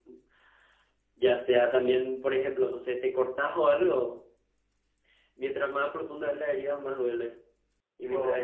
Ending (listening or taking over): listening